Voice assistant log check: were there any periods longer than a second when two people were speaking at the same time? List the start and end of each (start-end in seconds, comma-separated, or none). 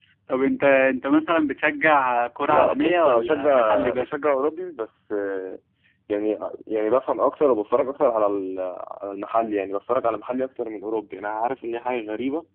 2.5-4.1